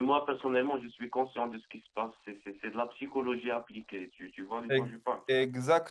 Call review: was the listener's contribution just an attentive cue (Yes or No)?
No